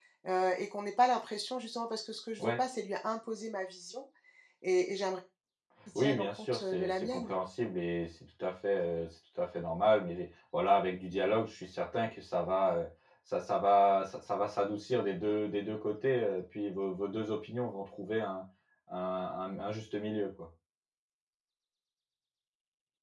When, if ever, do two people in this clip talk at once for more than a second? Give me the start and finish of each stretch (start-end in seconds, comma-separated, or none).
6.0-7.3